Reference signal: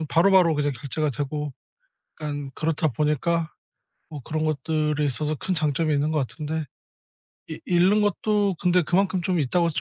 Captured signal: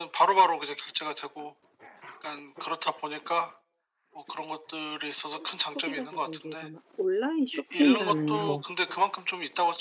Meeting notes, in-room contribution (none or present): present